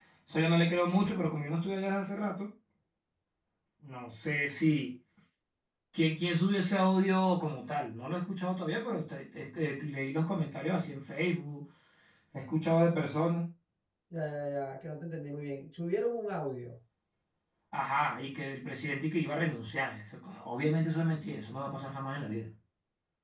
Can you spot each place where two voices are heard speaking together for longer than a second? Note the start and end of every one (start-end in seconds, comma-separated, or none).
none